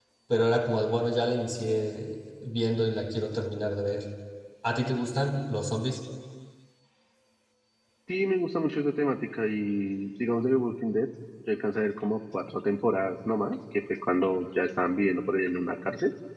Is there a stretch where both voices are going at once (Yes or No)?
No